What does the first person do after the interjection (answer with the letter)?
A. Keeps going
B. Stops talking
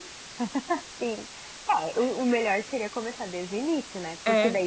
A